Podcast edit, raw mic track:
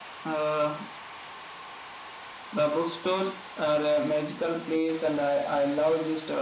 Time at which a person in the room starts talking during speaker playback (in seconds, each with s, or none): none